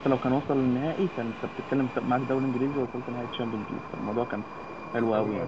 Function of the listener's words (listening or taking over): listening